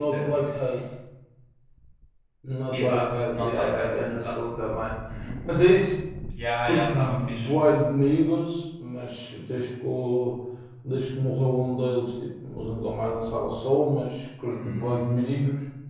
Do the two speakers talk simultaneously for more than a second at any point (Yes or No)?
Yes